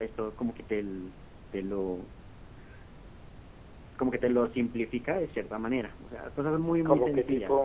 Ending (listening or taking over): taking over